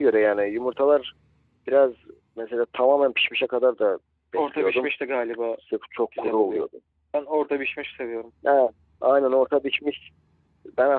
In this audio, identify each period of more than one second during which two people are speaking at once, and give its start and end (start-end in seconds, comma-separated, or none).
none